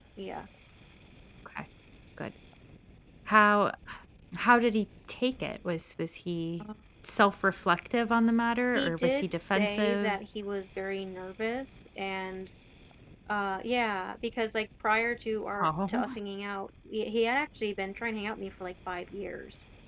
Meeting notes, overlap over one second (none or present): present